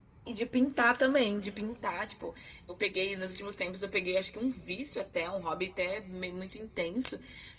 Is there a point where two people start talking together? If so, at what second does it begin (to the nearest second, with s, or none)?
none